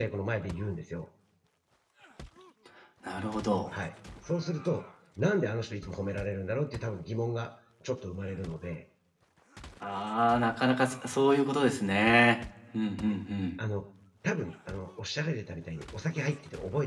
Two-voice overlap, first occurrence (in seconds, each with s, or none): none